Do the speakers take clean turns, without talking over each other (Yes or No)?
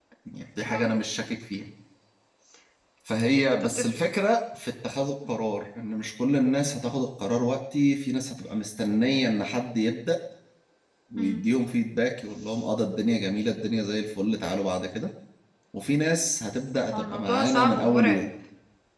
No